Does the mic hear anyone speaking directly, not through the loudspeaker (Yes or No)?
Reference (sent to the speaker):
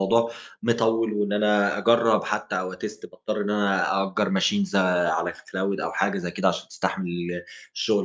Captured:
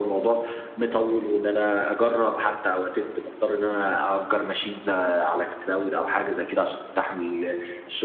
No